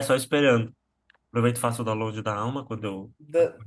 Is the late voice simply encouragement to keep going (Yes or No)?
No